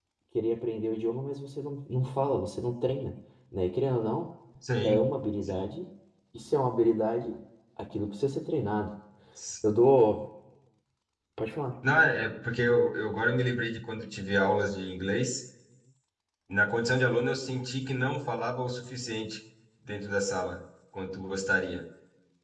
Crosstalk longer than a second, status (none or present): none